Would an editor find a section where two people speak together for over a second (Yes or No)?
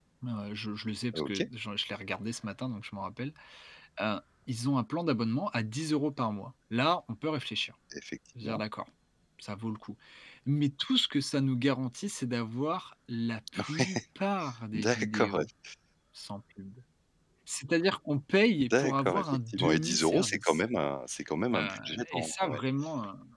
Yes